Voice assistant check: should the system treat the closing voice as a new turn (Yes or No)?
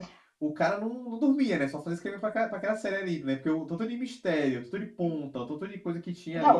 Yes